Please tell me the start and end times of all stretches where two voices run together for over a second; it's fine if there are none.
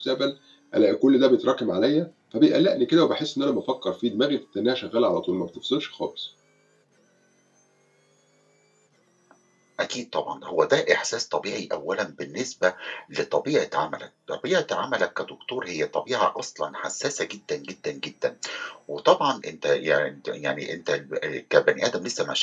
none

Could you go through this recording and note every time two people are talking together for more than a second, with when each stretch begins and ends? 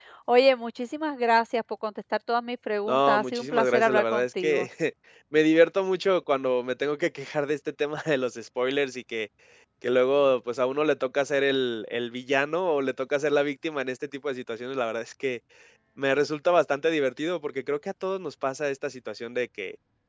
2.9-4.7

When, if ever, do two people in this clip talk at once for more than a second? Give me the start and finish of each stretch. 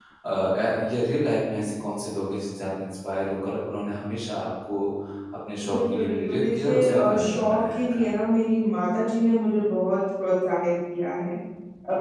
5.7-8.1

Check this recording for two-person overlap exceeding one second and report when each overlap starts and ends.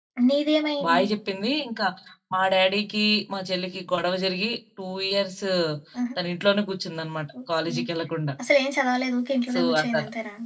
none

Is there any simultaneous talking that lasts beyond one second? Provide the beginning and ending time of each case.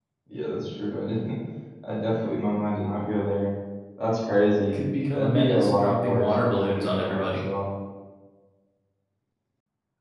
4.7-7.5

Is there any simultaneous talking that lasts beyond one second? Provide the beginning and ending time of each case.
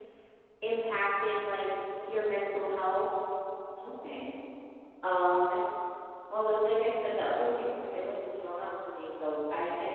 none

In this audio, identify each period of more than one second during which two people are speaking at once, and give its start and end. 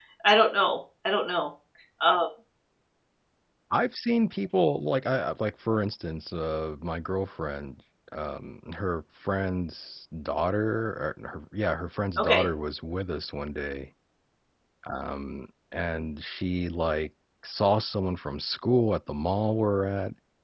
none

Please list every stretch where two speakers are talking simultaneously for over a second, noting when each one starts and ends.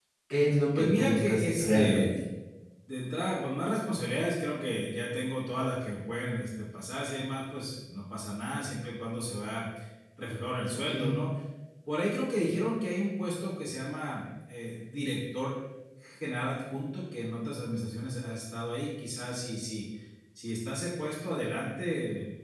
0.8-2.2

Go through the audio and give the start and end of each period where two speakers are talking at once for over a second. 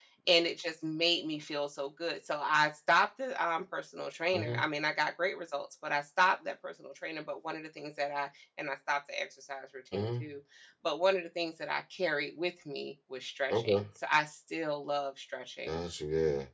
none

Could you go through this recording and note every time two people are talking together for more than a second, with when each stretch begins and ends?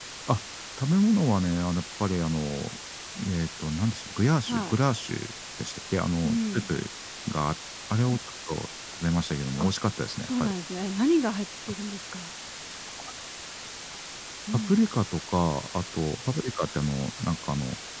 none

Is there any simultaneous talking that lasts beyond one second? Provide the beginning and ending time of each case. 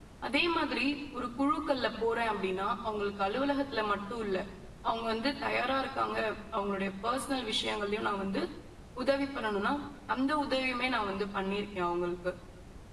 none

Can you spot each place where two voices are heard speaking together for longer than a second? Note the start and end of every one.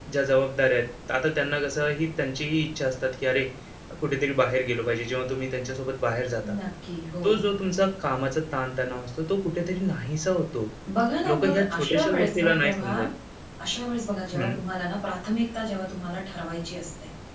11.3-13.0

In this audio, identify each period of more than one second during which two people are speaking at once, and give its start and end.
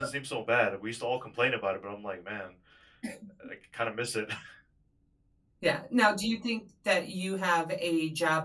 none

